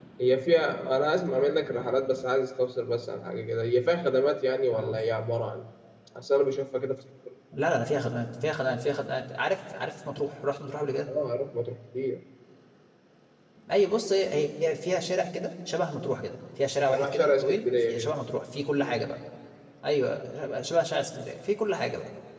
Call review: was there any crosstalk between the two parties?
Yes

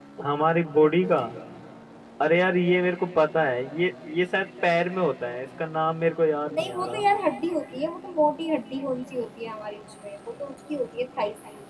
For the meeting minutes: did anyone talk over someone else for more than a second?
No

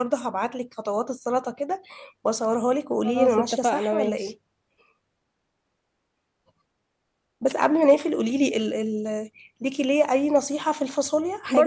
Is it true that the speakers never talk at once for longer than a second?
No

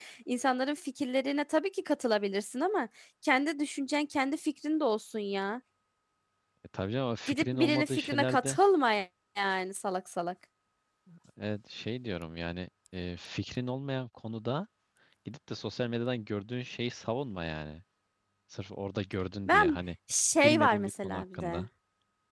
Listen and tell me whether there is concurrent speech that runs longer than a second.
Yes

